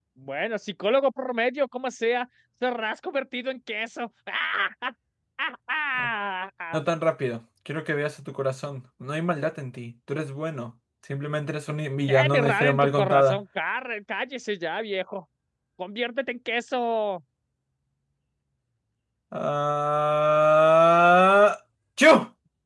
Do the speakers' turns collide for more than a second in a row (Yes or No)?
Yes